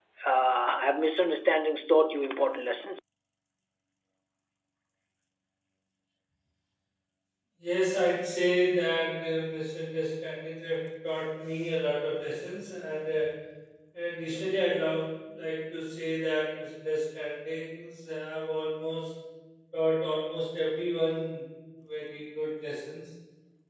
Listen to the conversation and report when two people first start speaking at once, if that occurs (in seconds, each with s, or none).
none